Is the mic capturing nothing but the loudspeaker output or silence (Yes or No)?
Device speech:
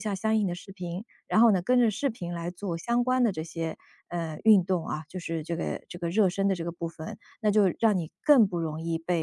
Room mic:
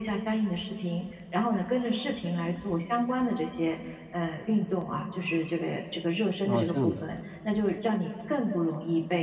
No